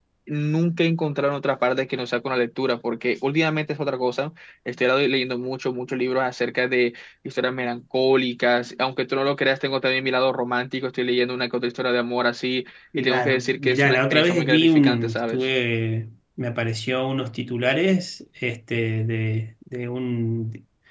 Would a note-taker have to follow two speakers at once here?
Yes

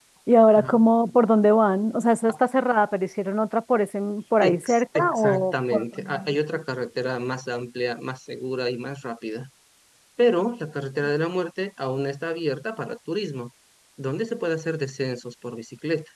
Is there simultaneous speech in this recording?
Yes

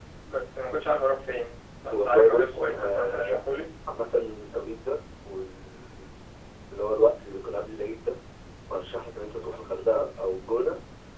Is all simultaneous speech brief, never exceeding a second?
No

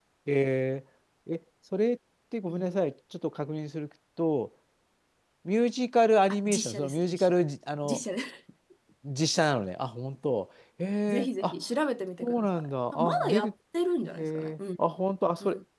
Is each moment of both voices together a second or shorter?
No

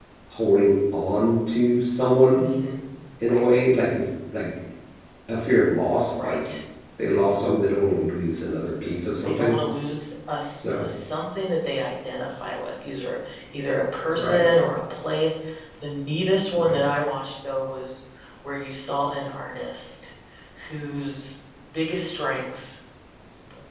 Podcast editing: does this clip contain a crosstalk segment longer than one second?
No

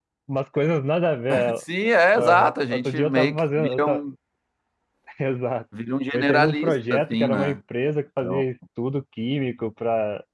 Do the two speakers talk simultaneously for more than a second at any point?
Yes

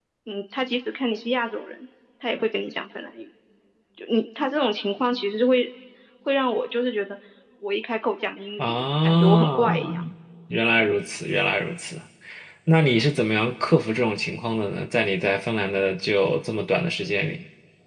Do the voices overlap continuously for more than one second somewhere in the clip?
Yes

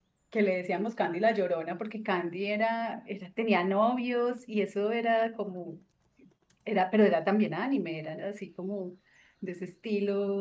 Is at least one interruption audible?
No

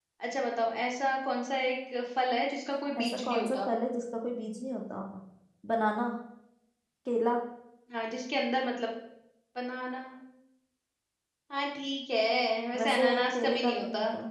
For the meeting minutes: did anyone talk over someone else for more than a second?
Yes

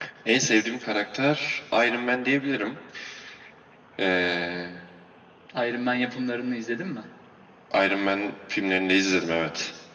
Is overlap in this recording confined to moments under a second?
Yes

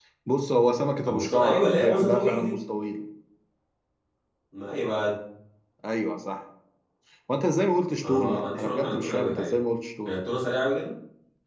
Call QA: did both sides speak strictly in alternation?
No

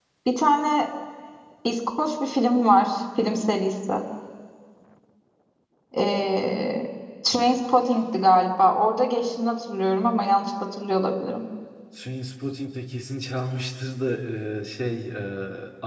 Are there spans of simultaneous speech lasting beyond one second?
No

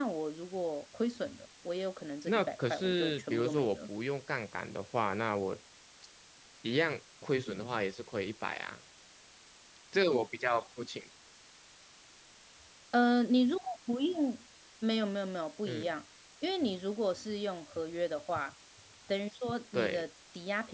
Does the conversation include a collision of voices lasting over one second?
Yes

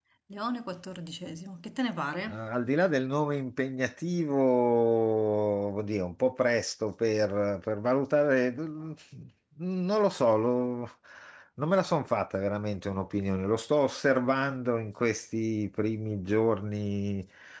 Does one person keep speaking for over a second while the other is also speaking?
No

